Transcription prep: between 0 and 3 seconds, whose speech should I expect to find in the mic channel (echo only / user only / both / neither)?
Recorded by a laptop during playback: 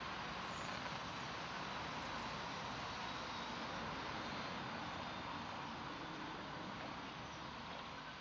neither